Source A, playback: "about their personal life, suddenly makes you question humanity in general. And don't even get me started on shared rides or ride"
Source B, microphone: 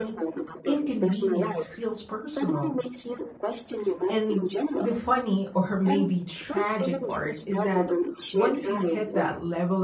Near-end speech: present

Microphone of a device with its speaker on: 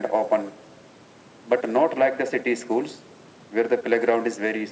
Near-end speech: none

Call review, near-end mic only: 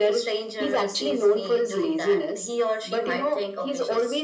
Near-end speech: none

